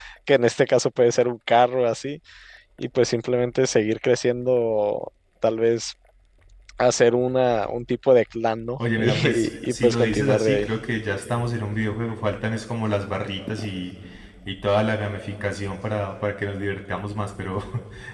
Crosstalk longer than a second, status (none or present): present